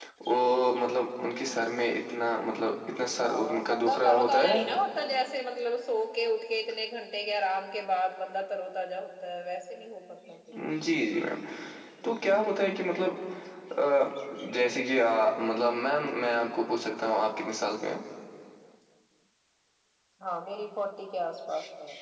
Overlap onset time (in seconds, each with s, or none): 3.2 s